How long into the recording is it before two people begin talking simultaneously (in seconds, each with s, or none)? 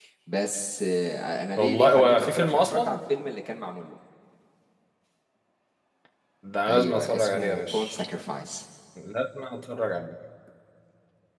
1.6 s